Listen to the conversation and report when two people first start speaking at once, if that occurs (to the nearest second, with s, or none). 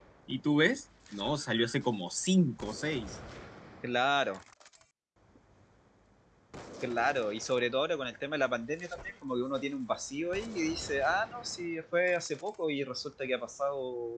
none